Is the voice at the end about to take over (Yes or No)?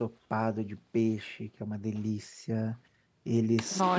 No